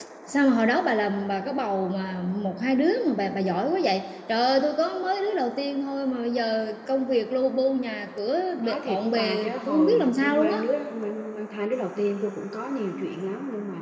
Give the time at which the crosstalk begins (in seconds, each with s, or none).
8.6 s